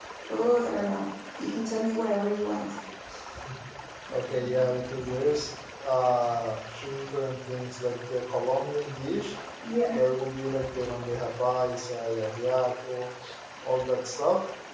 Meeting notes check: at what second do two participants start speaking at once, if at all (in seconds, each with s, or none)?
none